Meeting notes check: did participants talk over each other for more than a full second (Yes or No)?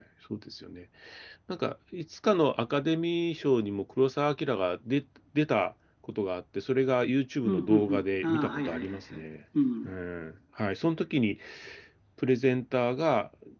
Yes